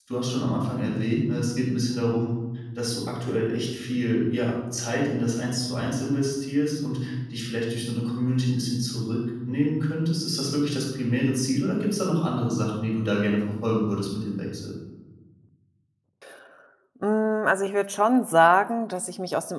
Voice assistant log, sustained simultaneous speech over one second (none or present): none